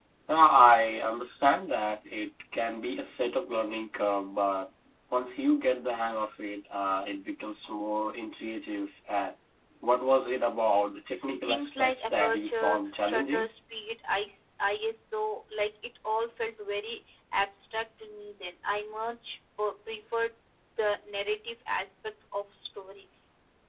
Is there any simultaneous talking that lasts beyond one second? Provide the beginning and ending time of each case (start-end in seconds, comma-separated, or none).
11.5-13.5